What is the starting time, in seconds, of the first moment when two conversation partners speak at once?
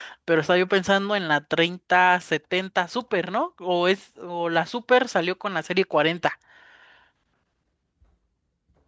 none

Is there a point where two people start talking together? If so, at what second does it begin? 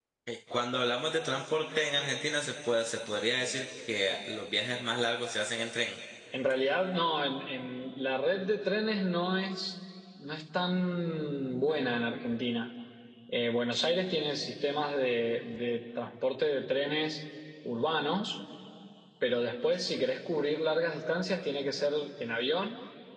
none

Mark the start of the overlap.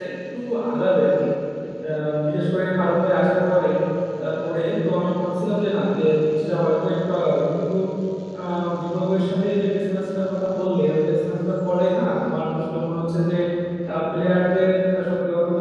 none

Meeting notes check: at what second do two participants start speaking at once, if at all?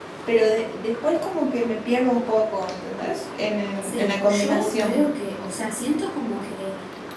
3.8 s

